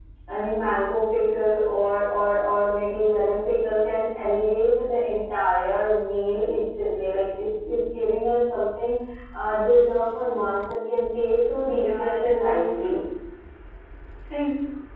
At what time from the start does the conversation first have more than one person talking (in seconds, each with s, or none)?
11.7 s